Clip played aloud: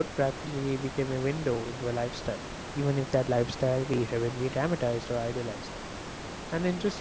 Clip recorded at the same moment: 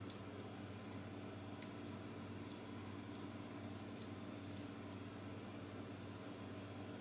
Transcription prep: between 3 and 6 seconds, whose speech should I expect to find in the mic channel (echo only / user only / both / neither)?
neither